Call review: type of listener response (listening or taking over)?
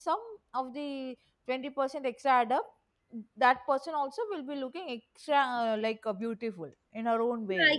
taking over